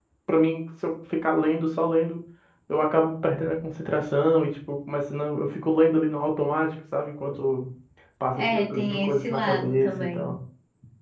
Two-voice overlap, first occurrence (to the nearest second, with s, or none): 8 s